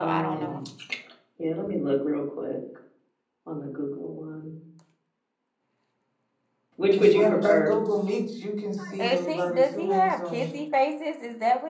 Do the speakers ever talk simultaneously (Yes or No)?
Yes